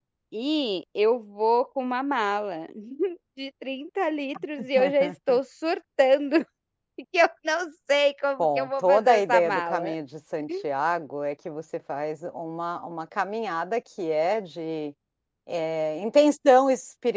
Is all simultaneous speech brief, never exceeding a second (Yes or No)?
No